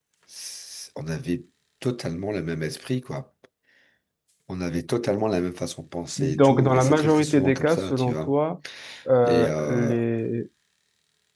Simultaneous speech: Yes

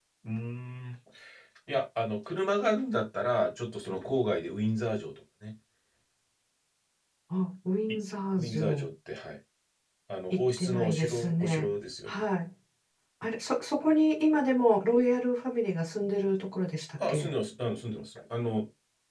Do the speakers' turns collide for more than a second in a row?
Yes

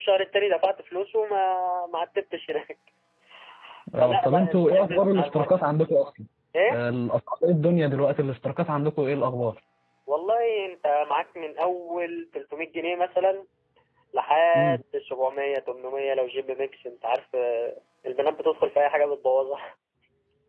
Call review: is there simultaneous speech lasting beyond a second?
Yes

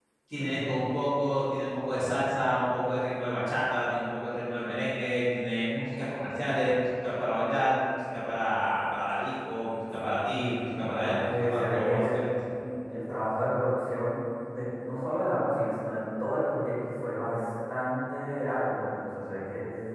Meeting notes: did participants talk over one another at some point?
Yes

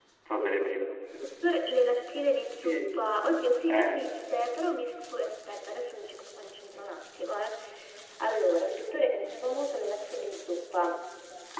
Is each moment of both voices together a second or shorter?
Yes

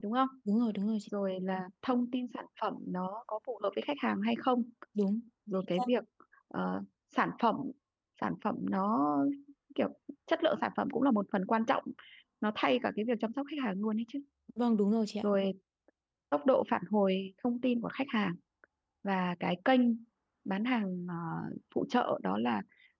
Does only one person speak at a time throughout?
Yes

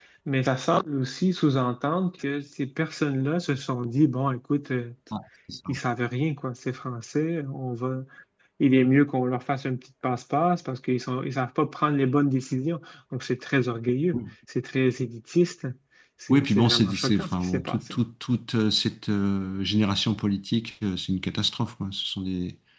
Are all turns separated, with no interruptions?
No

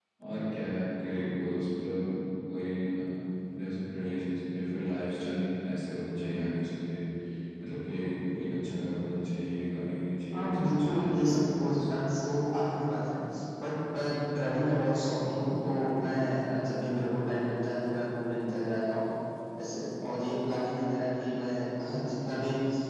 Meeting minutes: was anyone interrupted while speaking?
Yes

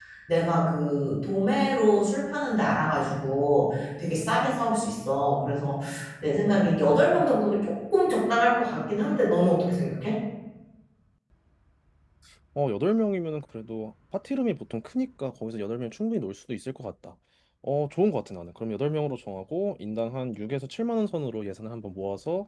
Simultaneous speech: No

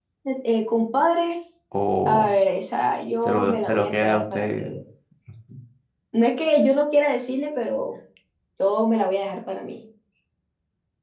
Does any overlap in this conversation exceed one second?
Yes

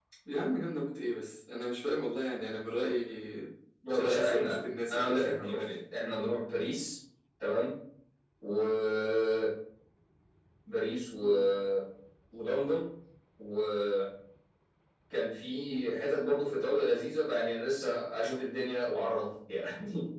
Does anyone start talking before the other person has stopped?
Yes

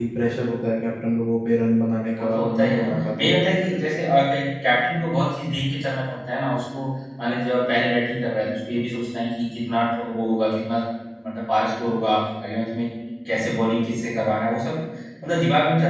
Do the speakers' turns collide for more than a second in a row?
Yes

